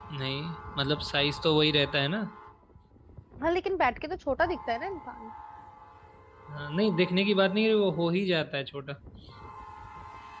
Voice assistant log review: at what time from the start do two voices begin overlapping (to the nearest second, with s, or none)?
none